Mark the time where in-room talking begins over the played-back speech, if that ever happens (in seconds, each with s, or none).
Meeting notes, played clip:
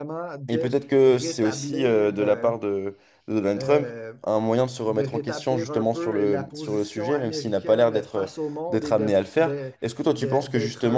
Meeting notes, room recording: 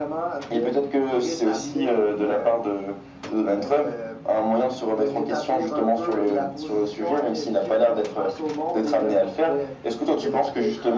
none